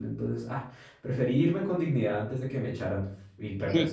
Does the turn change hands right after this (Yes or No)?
Yes